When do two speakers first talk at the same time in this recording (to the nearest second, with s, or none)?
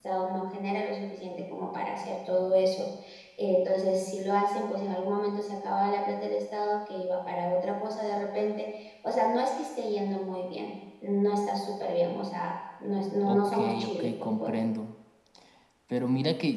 13 s